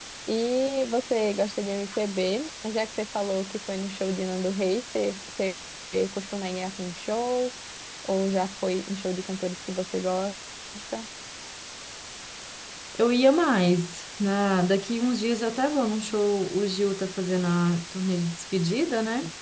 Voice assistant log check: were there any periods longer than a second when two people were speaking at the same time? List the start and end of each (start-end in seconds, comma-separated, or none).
none